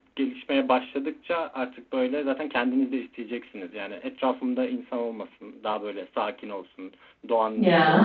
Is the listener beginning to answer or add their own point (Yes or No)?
No